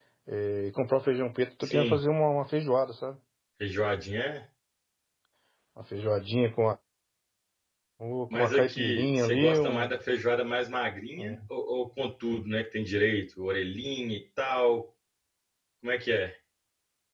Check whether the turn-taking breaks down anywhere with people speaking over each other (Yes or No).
Yes